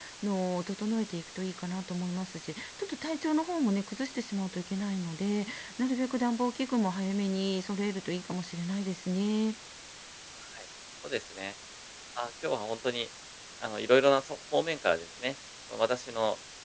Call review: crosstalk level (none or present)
none